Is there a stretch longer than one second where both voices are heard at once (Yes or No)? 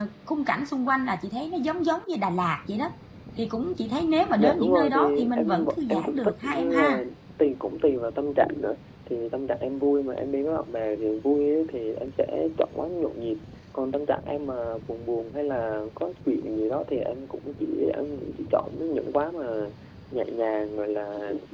Yes